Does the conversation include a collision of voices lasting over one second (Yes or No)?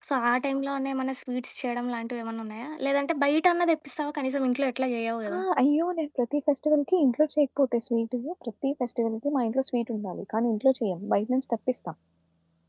No